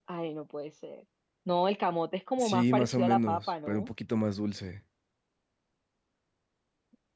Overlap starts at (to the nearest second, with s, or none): 2 s